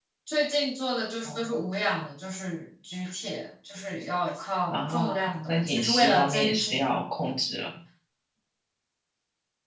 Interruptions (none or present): present